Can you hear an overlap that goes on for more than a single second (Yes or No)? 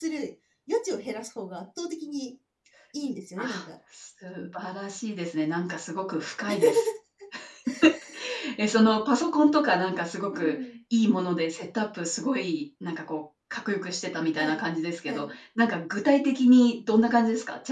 No